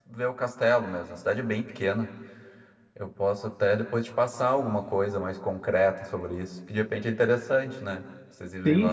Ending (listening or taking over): taking over